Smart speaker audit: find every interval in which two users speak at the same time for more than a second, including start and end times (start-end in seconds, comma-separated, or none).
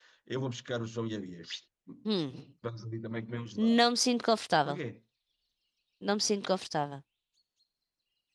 none